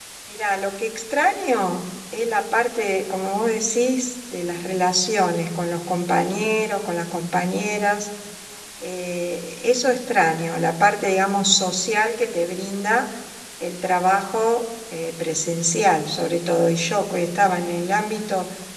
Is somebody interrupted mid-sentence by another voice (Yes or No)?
No